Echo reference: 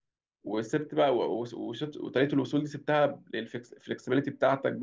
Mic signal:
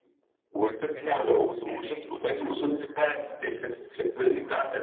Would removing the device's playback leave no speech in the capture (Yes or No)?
No